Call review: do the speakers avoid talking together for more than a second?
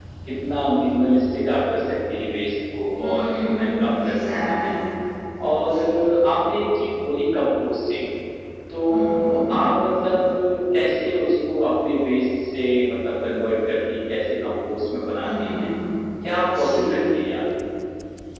No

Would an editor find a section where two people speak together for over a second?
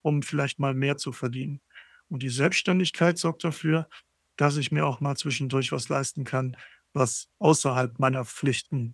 No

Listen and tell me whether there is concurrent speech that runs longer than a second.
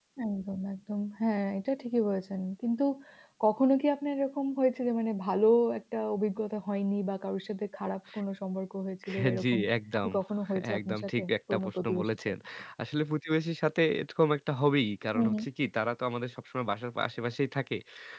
Yes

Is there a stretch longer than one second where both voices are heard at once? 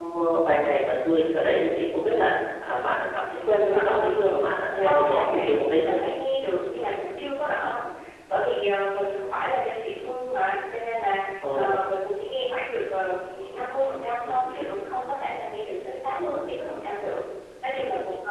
Yes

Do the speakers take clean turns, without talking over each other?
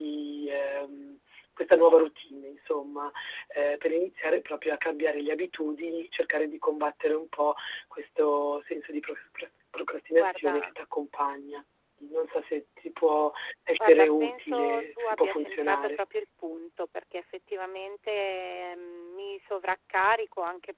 No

